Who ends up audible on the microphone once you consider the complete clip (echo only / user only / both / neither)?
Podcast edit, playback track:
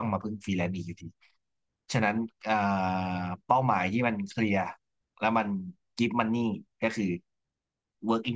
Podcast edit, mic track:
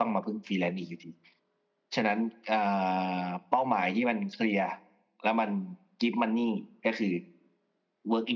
echo only